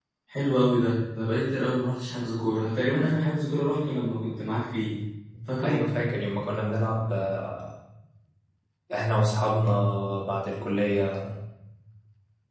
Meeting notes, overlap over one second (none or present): none